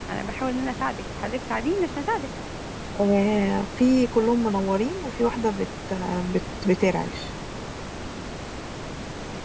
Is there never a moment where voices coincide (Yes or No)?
Yes